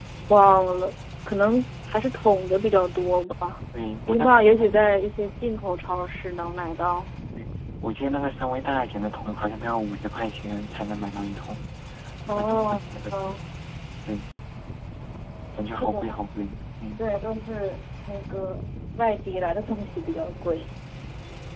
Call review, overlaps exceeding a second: present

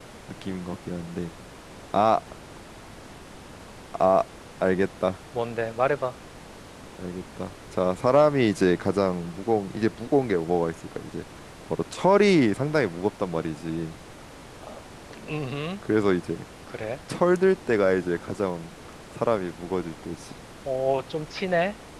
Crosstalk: none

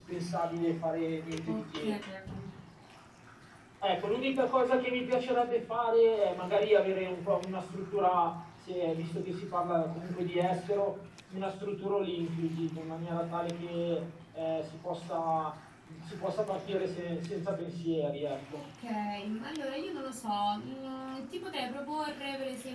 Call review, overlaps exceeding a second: none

